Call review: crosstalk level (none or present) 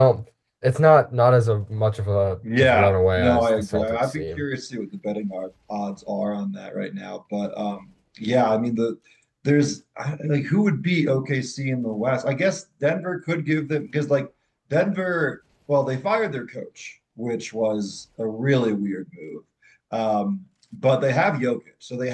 present